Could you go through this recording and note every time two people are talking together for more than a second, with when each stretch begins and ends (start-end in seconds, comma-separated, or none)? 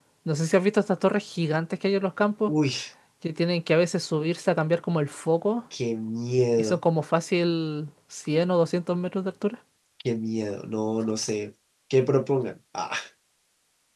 none